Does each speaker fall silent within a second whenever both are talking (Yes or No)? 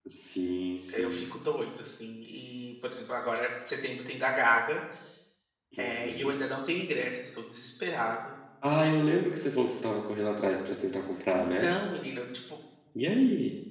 Yes